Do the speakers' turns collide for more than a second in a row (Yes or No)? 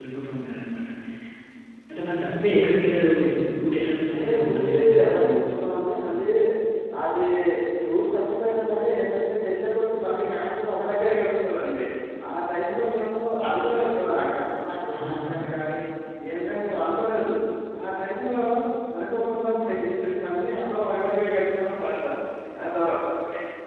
Yes